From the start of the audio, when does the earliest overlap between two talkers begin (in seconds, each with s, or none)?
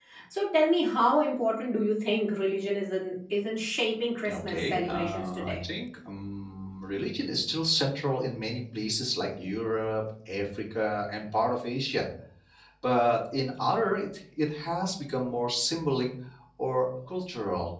4.2 s